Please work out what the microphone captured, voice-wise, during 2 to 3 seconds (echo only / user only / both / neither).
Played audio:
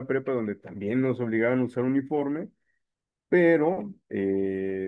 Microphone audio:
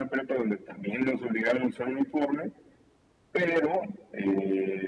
echo only